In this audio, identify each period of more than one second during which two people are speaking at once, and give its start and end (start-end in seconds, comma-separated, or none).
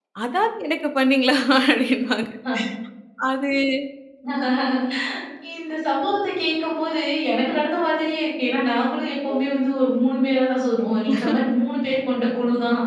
none